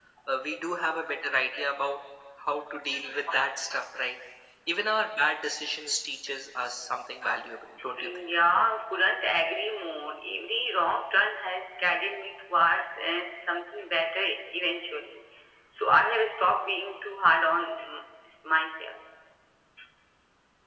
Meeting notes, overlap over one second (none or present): none